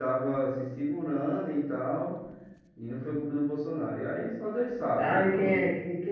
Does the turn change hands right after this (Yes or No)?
Yes